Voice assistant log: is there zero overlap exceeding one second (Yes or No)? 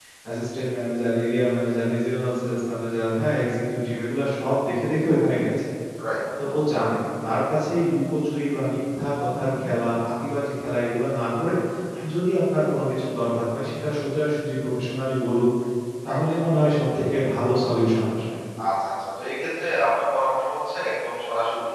Yes